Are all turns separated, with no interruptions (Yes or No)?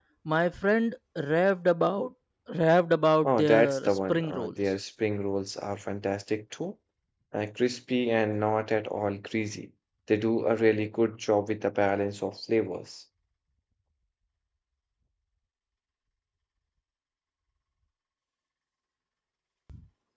No